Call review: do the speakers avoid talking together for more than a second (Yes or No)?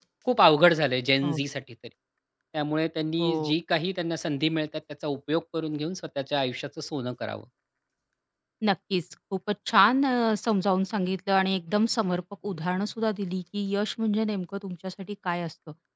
Yes